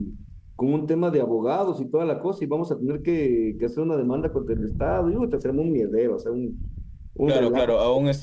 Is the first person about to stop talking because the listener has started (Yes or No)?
Yes